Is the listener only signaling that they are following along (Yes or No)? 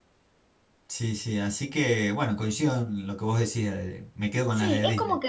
No